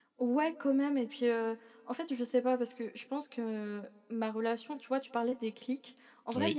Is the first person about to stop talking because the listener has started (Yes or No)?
No